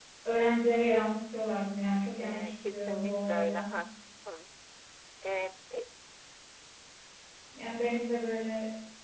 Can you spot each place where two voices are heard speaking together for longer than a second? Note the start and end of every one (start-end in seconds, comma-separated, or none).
2.2-3.7